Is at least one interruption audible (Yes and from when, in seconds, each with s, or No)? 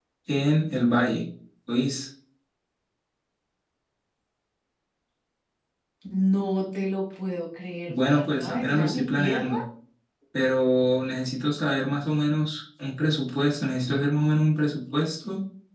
Yes, from 7.9 s